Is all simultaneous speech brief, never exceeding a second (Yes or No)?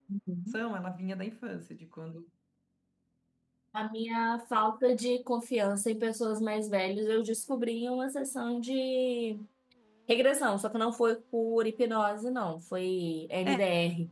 Yes